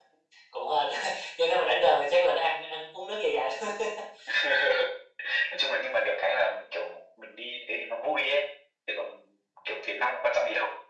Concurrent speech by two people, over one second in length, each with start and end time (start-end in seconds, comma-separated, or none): none